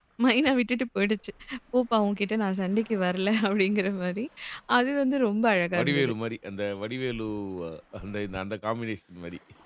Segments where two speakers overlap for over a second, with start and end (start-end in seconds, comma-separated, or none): none